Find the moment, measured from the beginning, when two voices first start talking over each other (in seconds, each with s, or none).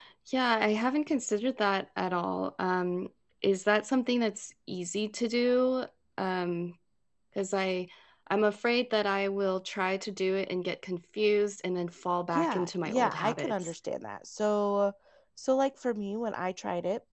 12.3 s